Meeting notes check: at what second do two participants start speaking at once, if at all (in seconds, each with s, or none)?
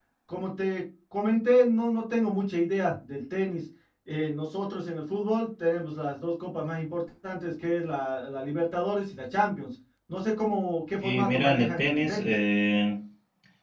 11.0 s